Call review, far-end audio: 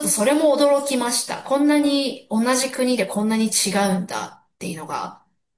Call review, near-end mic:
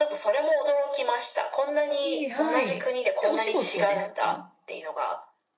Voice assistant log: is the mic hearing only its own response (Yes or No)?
No